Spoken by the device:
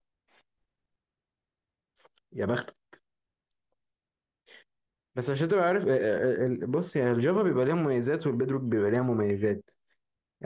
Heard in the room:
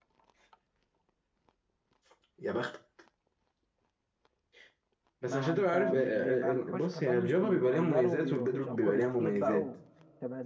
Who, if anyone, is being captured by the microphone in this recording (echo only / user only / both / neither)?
both